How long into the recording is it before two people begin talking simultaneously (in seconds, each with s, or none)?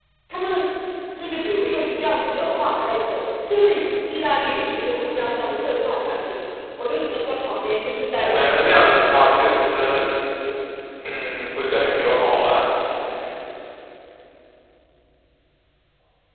8.2 s